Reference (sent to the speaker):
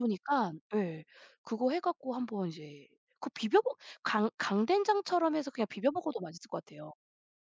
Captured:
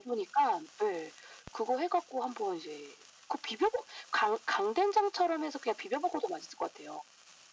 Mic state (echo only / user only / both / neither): echo only